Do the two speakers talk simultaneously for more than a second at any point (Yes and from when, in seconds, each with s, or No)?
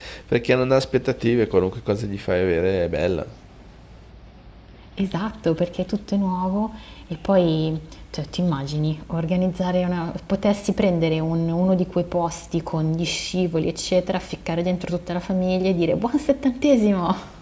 No